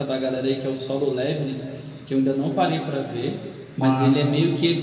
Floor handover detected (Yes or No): No